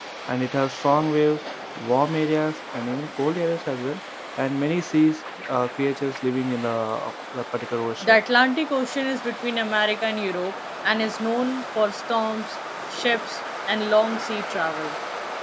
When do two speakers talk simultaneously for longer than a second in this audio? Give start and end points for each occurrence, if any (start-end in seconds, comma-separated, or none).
none